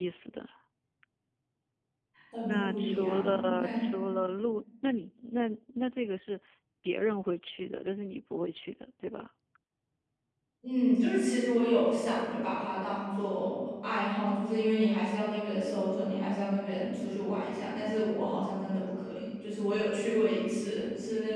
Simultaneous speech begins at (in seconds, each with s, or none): 2.4 s